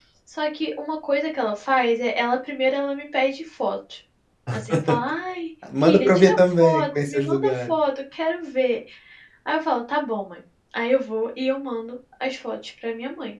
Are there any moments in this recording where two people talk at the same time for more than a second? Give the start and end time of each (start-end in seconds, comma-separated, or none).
5.8-7.7